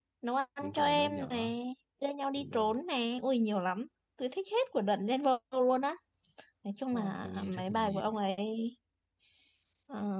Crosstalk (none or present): present